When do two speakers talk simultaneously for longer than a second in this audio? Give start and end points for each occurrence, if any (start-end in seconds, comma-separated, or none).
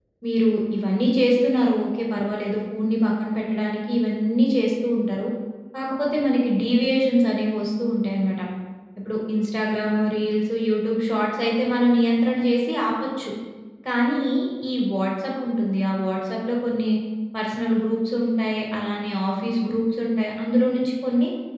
none